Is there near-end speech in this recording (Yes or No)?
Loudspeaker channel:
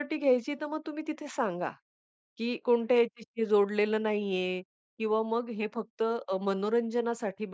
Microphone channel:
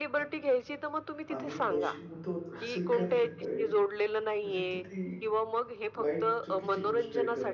Yes